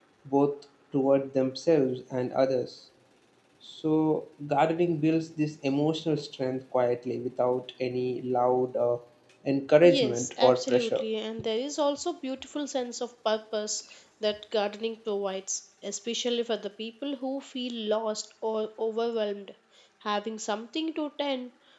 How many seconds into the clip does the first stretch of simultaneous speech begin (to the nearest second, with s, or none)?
10 s